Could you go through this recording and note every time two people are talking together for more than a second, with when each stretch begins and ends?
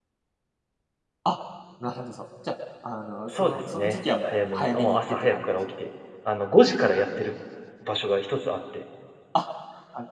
3.3-5.6

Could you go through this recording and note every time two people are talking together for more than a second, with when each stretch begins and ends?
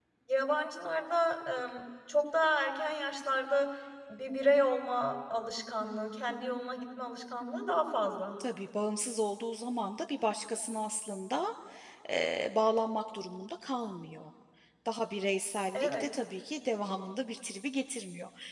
none

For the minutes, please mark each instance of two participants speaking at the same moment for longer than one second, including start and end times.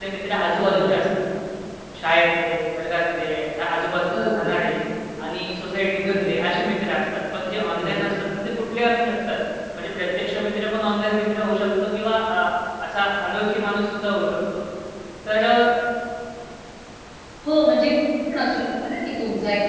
none

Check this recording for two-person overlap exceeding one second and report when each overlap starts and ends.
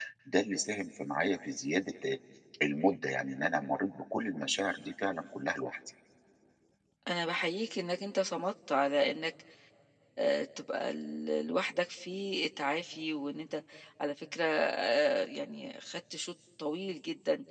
none

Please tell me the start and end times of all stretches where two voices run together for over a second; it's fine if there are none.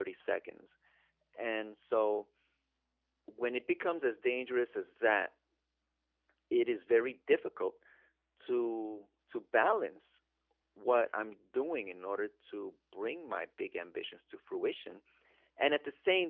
none

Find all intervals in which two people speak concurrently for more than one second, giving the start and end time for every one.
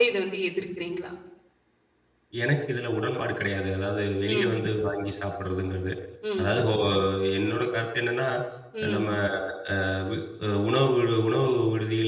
none

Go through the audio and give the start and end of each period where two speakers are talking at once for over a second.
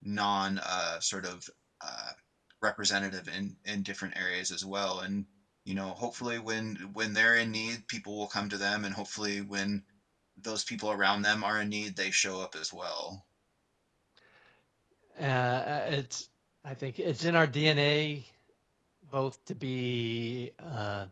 none

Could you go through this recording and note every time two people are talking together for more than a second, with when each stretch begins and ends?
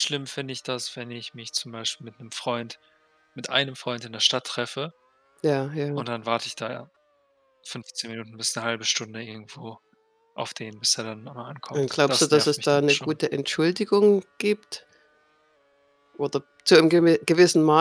11.7-13.2

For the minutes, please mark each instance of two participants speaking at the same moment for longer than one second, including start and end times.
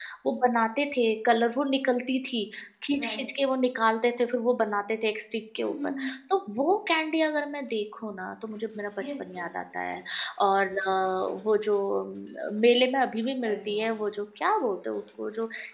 none

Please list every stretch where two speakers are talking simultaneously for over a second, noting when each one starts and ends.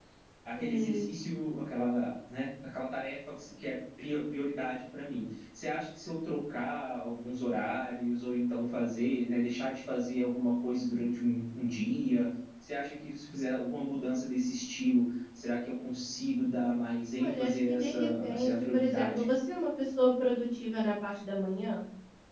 17.2-19.2

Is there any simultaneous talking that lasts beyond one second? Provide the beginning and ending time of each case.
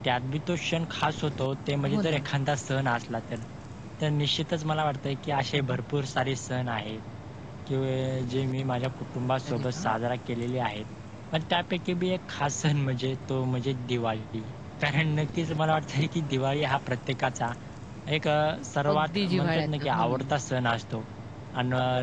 18.9-20.3

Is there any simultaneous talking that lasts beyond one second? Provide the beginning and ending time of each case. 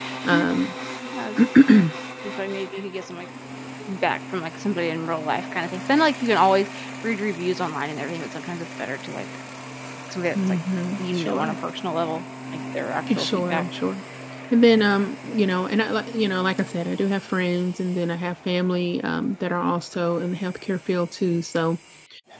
none

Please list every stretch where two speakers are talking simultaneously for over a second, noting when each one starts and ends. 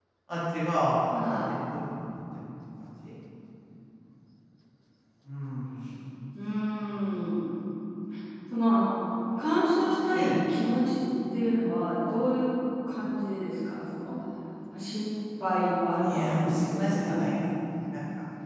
16.0-17.4

